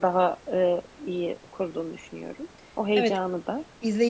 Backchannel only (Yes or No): No